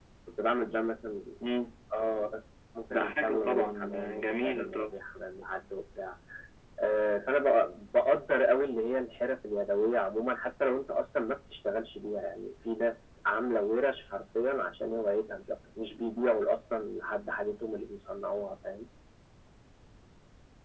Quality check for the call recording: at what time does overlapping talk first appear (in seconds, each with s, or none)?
2.9 s